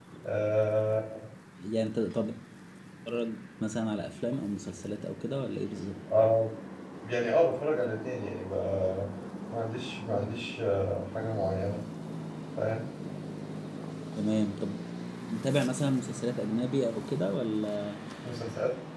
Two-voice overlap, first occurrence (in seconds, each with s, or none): none